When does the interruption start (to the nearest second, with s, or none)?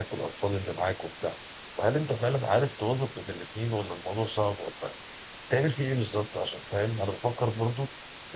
none